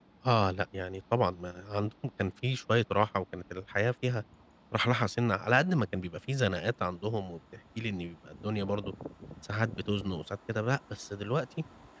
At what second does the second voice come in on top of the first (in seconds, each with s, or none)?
none